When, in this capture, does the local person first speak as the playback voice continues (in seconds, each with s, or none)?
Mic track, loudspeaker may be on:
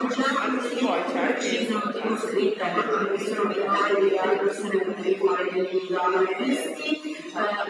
0.4 s